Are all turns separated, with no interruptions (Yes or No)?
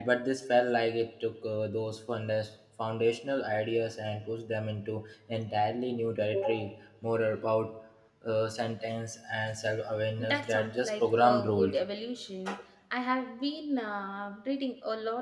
No